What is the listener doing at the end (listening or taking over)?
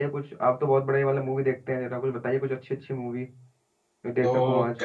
taking over